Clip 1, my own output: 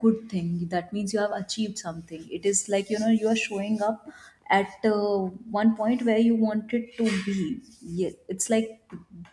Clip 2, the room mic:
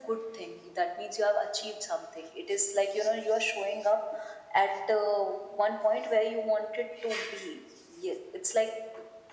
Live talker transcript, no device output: none

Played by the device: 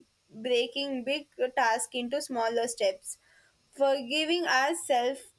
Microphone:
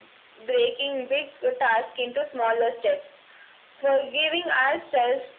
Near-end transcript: none

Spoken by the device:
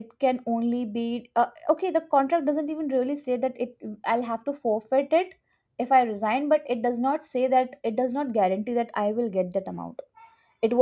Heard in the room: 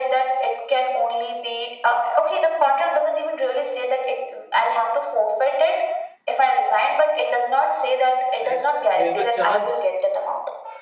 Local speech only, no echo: Like, there's a chance.

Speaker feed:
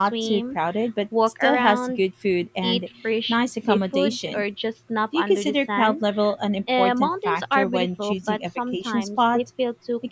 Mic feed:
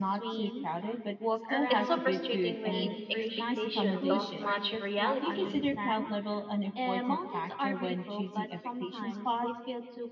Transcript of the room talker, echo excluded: It's so frustrating when expectations don't match reality.

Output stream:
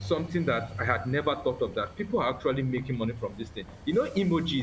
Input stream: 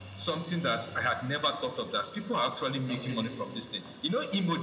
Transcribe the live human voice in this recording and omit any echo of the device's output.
it's something

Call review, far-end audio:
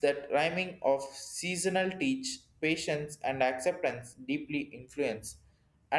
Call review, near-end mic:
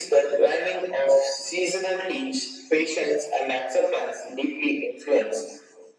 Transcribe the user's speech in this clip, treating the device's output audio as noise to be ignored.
none

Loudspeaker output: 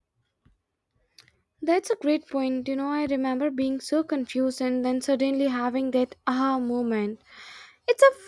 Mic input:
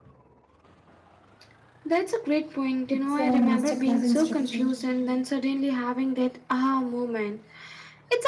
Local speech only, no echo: It's a masterclass in structure.

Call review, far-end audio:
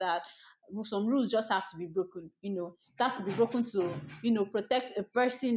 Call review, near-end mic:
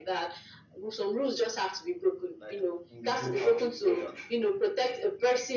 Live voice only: like will go out of order.

